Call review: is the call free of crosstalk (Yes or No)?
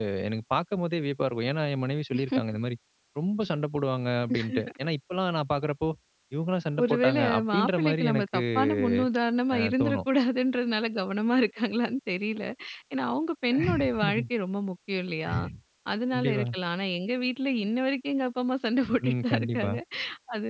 No